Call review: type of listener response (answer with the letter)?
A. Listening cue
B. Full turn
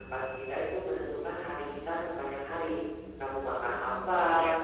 A